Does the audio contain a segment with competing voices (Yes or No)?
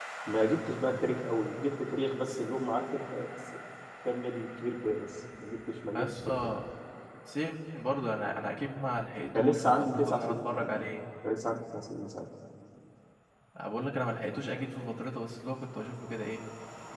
Yes